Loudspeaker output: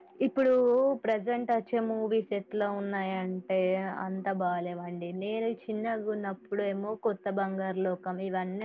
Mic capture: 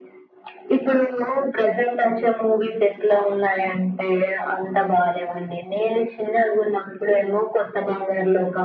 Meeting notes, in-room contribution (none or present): none